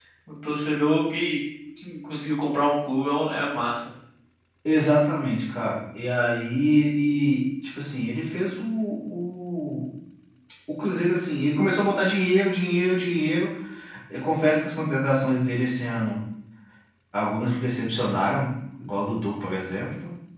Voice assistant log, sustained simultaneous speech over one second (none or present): none